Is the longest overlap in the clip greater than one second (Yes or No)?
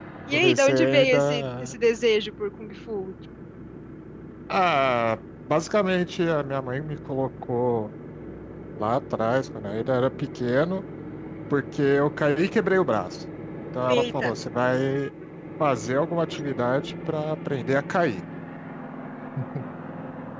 Yes